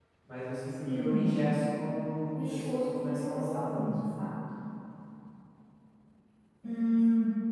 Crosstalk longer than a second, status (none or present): present